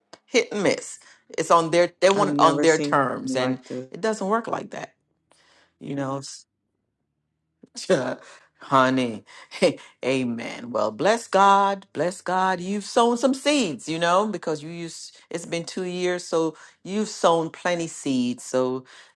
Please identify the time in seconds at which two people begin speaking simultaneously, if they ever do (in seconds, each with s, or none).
2.1 s